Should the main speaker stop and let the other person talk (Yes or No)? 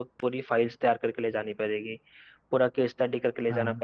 No